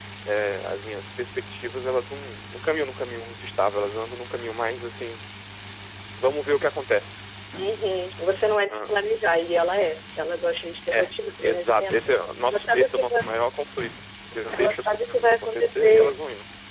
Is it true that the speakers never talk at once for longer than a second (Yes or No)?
No